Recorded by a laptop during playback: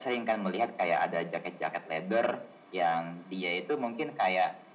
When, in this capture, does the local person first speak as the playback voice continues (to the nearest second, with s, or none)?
none